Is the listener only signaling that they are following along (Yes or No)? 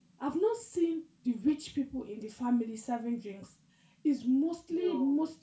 Yes